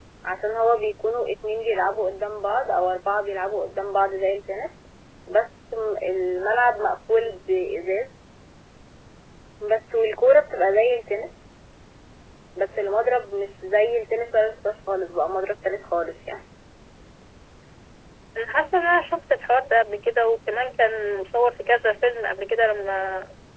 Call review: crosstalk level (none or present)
none